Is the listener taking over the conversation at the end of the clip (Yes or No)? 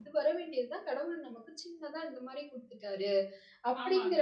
Yes